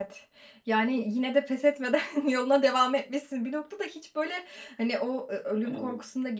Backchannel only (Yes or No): Yes